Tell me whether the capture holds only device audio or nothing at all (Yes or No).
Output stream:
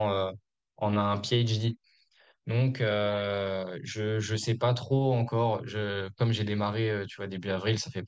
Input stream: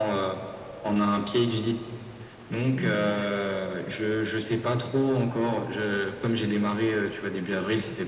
No